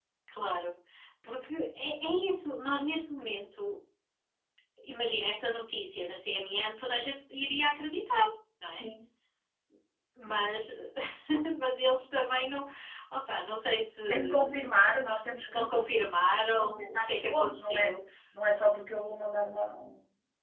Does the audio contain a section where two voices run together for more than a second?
Yes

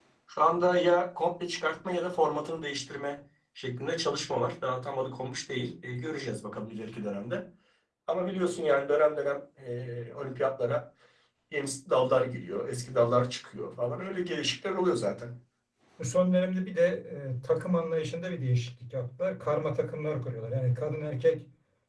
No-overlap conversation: Yes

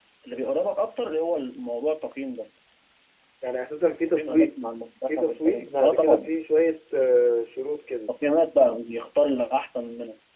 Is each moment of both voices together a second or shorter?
No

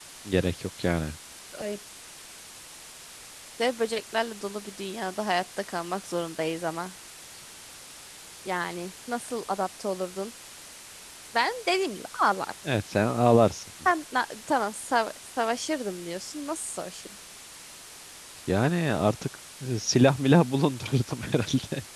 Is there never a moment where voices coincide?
Yes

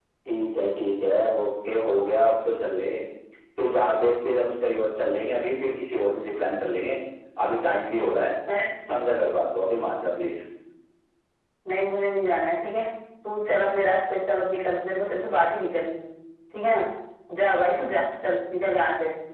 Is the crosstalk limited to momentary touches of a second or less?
Yes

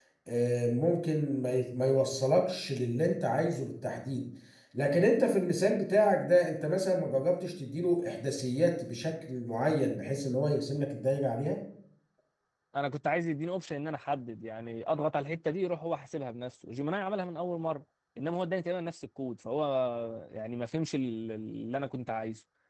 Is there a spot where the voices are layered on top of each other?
No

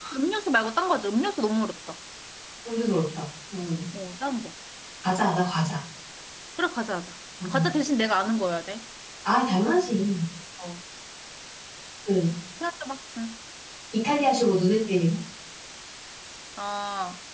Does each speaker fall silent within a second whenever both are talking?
Yes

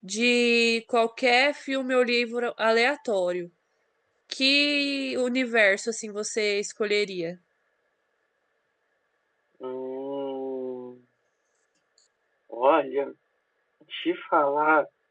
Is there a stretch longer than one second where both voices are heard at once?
No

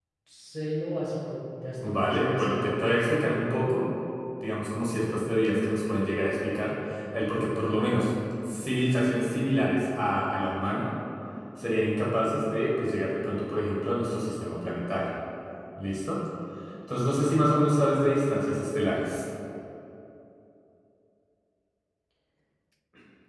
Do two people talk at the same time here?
Yes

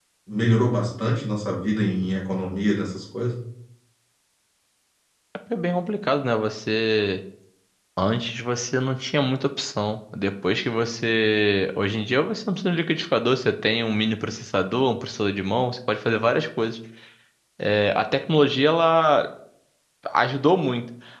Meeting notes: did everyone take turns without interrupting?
Yes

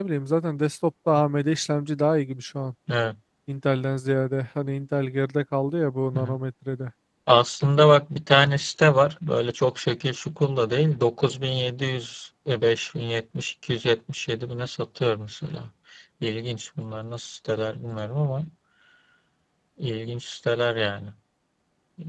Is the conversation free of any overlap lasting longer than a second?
Yes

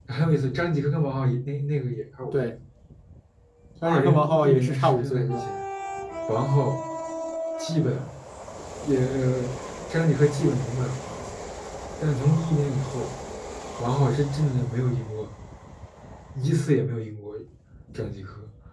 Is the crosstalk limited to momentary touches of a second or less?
No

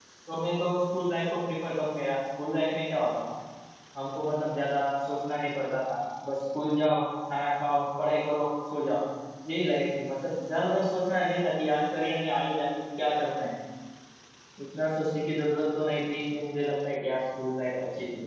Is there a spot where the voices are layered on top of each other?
No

